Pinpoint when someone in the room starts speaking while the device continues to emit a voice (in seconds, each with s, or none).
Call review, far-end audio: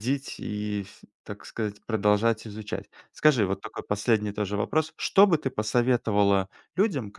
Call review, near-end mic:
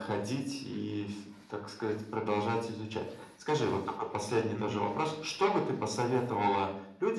4.5 s